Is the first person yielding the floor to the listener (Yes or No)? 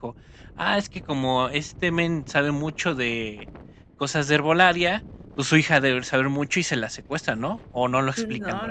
Yes